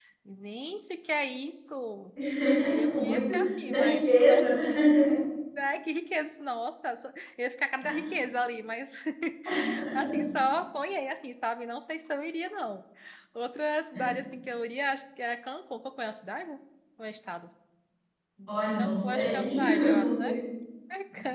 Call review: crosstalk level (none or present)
present